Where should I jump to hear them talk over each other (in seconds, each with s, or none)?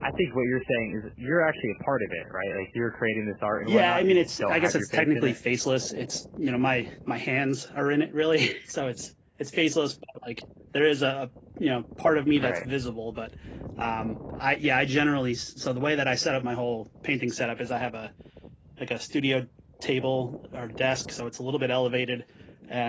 3.7 s